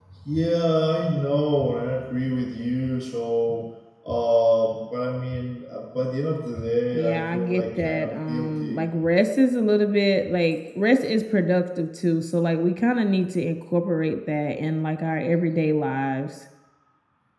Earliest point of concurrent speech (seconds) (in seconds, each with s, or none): 6.9 s